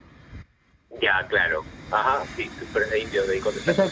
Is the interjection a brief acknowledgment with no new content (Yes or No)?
No